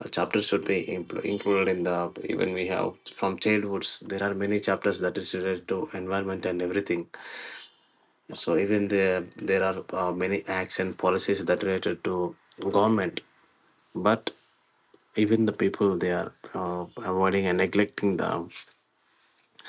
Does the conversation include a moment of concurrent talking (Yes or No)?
No